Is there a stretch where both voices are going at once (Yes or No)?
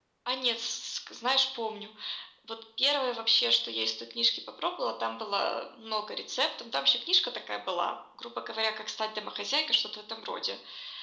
No